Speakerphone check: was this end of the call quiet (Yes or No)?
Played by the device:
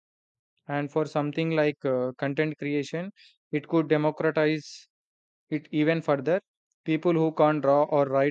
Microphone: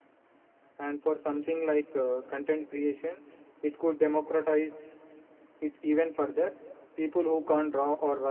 Yes